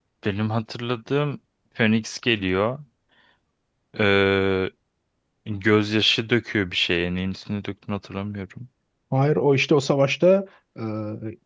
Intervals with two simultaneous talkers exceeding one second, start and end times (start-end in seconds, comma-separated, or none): none